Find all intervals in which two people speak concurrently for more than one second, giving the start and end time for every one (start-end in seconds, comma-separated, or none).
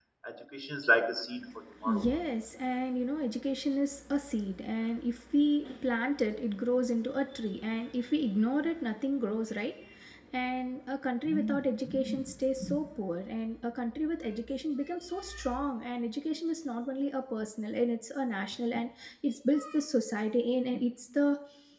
none